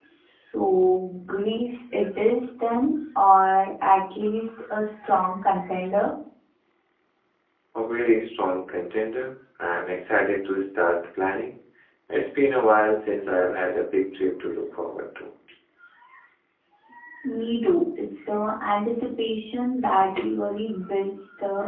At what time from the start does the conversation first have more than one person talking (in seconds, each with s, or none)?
none